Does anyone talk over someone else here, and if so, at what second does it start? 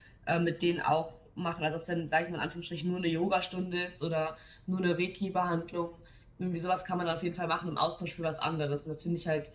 none

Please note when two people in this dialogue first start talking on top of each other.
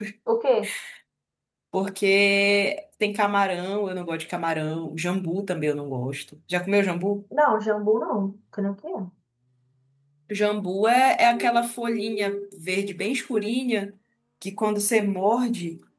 none

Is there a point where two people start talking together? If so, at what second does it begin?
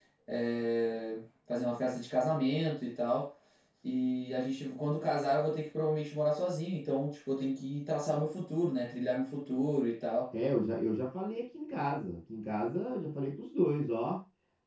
none

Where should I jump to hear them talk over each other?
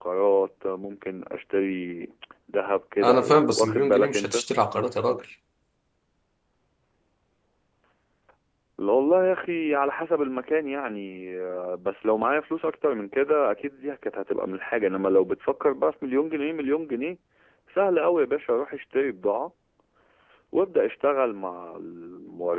3.0 s

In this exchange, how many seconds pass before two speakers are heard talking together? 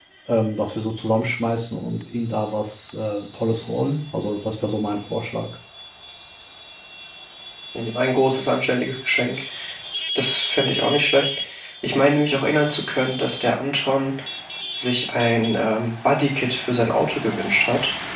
none

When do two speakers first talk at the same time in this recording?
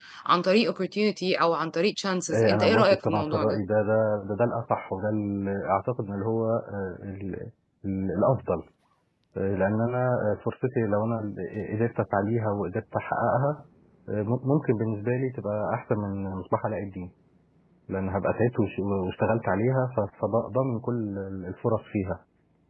2.3 s

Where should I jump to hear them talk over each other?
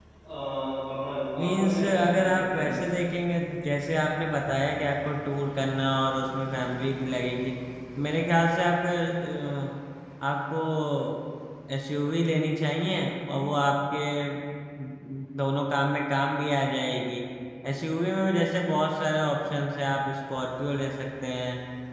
1.4 s

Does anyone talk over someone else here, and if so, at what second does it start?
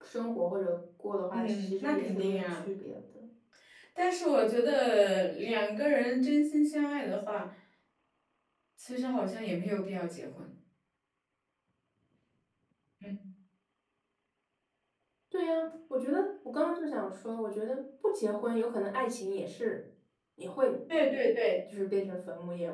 1.3 s

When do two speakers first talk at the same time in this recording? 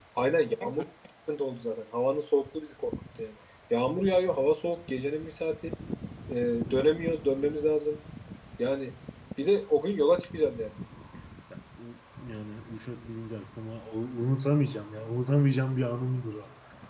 none

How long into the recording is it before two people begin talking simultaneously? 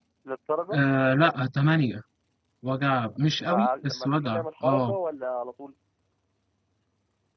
3.5 s

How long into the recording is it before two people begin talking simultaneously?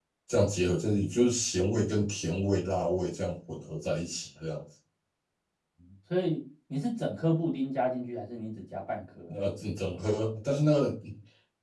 none

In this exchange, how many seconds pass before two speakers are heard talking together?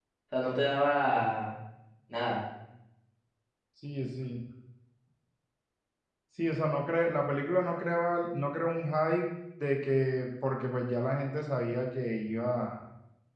none

